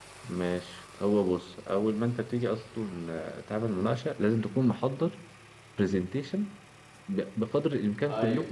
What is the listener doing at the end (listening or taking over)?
listening